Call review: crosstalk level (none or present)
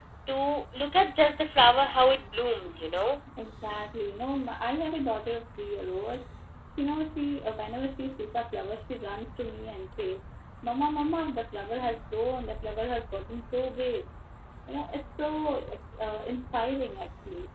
none